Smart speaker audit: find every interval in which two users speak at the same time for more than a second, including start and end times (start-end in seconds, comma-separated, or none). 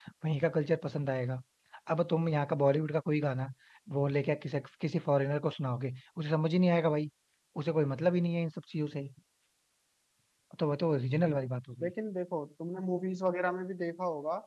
none